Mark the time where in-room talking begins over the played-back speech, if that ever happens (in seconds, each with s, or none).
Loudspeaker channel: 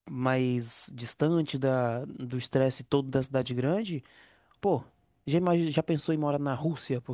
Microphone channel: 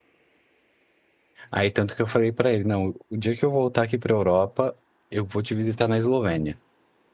1.5 s